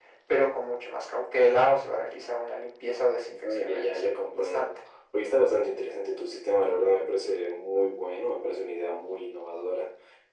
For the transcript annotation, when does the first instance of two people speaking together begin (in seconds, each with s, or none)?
3.2 s